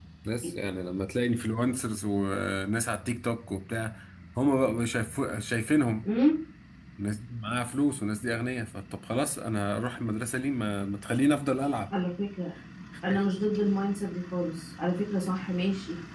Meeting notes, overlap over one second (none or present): none